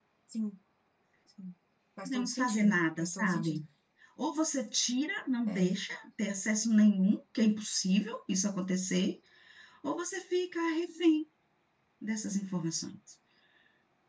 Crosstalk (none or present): present